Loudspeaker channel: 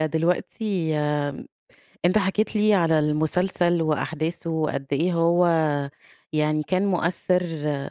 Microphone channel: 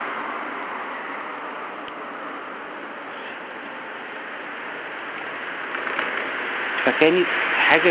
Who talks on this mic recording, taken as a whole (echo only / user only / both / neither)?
user only